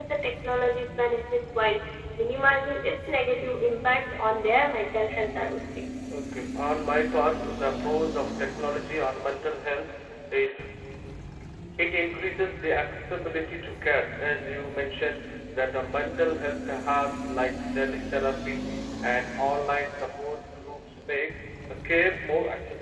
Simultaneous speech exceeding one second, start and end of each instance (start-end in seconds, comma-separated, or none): none